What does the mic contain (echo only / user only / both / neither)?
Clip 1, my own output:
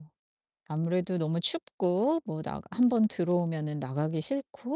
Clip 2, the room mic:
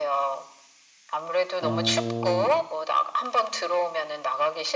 both